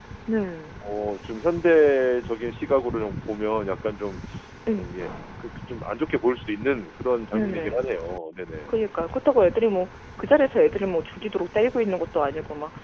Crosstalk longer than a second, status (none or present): none